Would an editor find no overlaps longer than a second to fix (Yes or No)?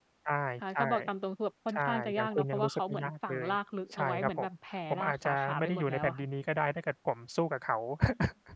No